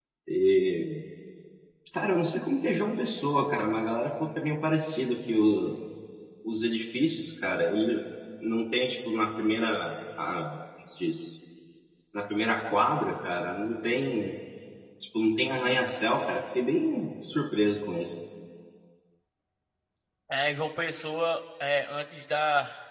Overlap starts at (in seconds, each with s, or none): none